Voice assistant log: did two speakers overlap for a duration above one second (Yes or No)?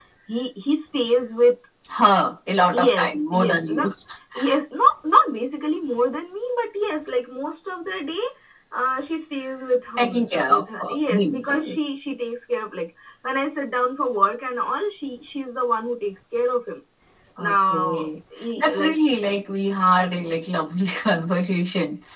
Yes